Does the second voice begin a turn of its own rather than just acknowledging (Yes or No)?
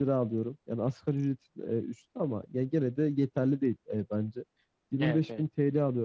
No